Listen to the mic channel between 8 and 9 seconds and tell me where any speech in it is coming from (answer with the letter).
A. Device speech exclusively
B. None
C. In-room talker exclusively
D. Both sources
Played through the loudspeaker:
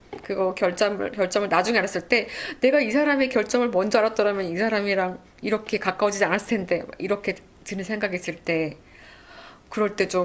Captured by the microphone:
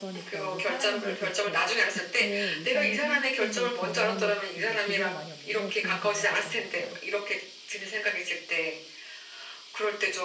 A